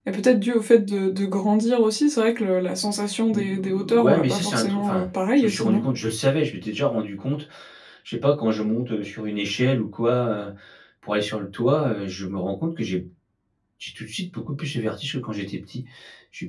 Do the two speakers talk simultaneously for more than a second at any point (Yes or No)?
Yes